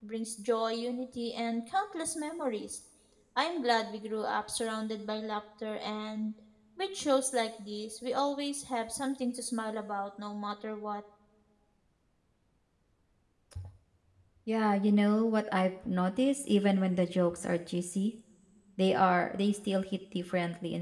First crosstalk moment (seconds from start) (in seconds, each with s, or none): none